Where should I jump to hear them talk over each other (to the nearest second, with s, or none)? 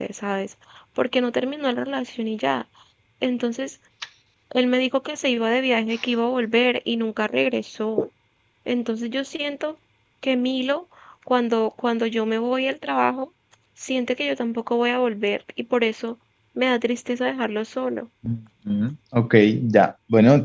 none